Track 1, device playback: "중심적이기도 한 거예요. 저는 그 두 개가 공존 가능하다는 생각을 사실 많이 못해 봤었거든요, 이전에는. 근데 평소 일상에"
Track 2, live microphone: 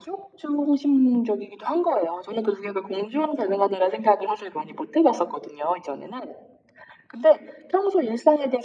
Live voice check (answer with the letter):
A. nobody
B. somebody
A